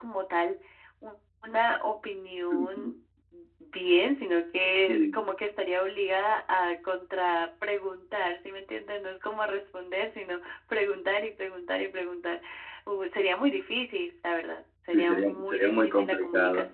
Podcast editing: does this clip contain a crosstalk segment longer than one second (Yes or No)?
Yes